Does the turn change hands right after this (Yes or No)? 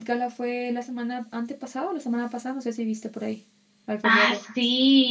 Yes